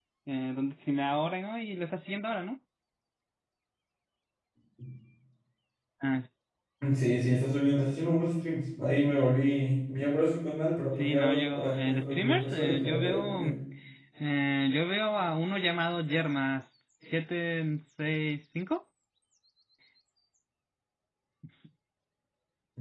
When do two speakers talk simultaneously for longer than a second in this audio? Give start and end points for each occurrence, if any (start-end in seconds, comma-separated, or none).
10.9-13.4